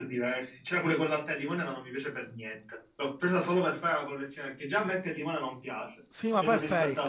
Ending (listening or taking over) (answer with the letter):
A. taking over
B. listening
A